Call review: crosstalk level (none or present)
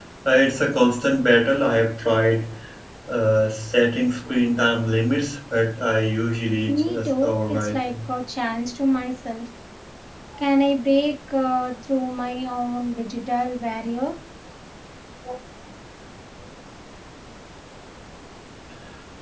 present